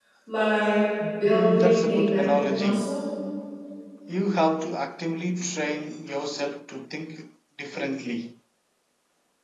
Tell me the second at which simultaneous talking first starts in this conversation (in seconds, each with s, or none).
1.3 s